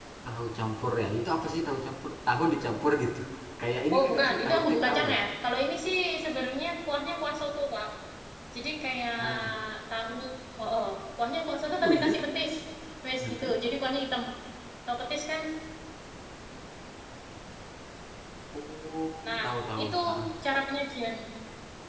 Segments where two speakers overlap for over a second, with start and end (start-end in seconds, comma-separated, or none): 3.9-5.2